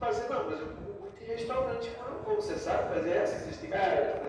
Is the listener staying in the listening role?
No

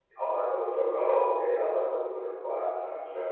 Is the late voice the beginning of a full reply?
Yes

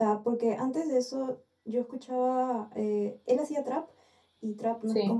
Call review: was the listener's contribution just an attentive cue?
Yes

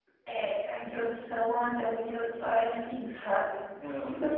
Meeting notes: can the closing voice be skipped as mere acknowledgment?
Yes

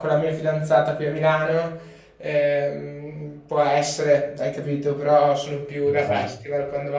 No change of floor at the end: Yes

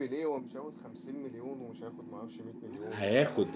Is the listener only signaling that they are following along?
No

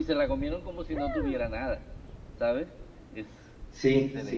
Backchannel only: No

